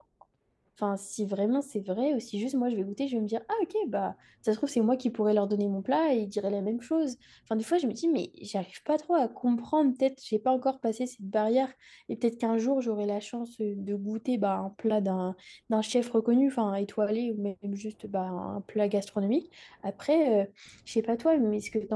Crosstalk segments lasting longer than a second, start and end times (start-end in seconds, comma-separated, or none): none